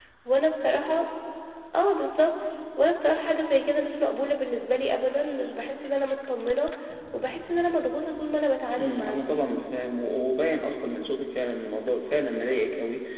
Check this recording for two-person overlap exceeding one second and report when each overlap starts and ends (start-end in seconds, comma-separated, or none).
none